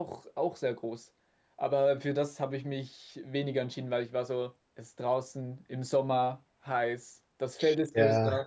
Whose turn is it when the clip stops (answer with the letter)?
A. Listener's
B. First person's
B